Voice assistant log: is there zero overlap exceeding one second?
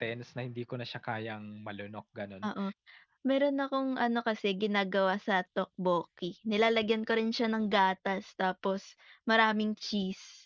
Yes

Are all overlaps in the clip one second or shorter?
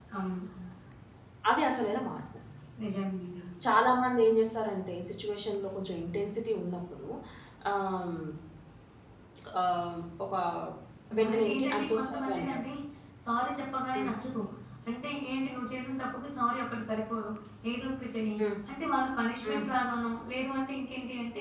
No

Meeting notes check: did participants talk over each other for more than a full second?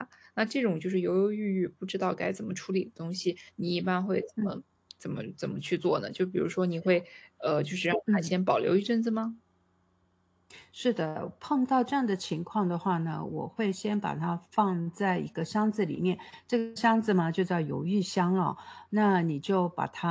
No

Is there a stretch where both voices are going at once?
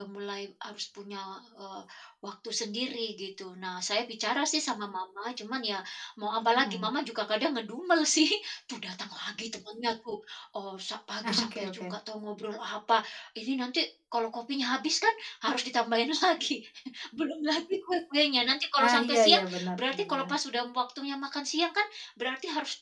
Yes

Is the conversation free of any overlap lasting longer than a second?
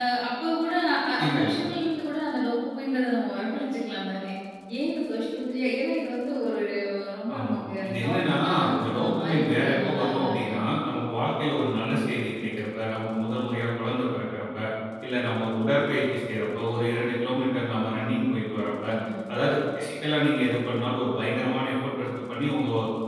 No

